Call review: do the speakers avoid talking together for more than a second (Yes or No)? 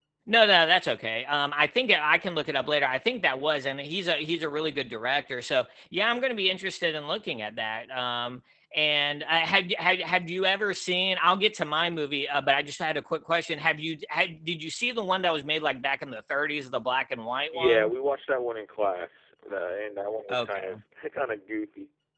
Yes